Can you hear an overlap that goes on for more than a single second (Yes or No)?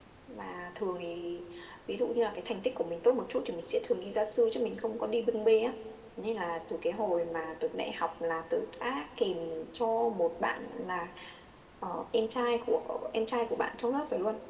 No